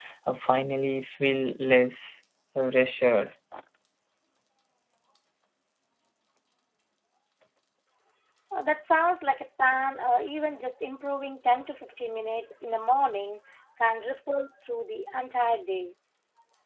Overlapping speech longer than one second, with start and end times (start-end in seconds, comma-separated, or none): none